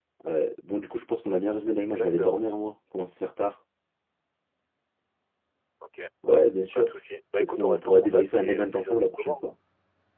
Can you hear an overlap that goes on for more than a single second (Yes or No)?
Yes